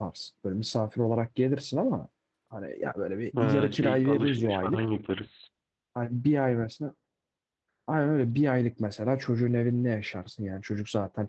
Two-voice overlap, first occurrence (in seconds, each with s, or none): 3.4 s